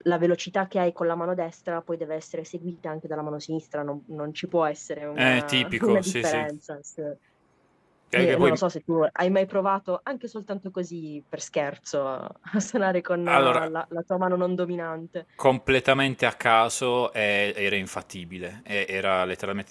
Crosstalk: present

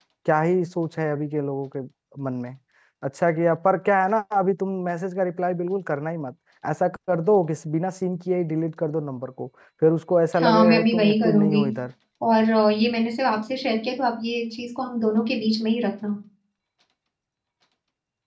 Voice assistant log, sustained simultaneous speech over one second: present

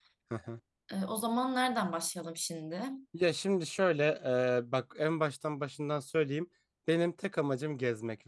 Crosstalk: none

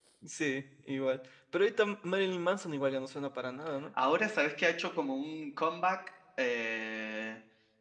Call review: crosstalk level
none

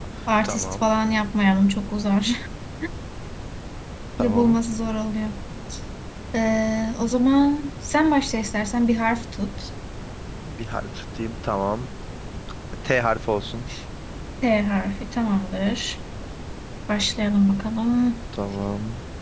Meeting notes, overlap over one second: none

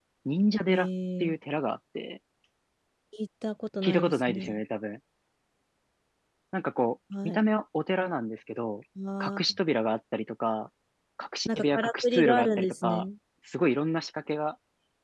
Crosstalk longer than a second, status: present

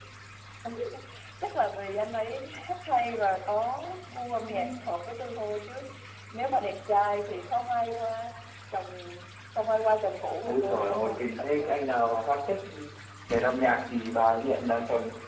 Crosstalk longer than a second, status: present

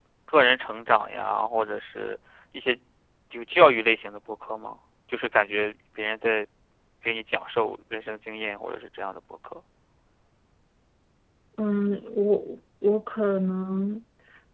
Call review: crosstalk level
none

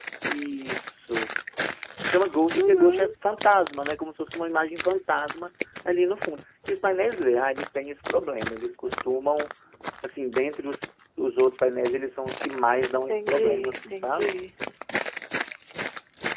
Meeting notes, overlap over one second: present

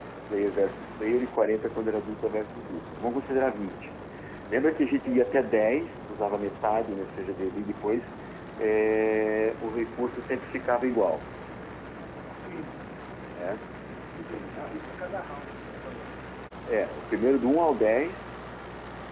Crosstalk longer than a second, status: none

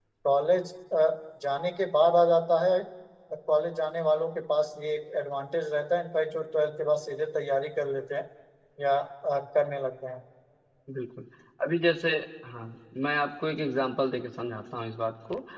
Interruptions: none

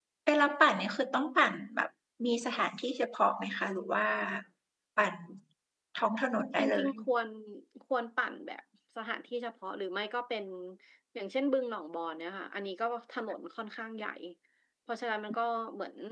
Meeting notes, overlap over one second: none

